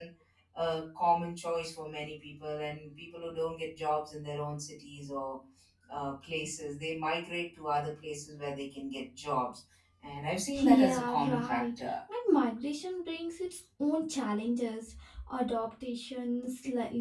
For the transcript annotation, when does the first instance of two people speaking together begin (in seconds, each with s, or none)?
10.6 s